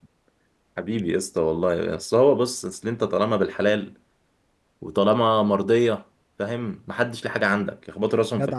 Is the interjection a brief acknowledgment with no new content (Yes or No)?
No